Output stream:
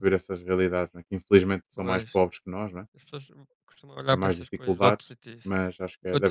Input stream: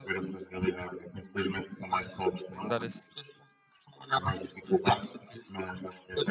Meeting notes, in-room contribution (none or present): present